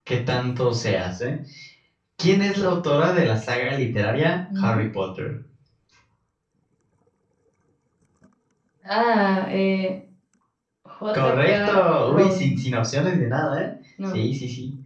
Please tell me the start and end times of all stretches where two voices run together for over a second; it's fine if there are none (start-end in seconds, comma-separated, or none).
11.1-12.6